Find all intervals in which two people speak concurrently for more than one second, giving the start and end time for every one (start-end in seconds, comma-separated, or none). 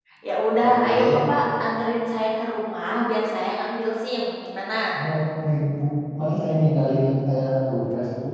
none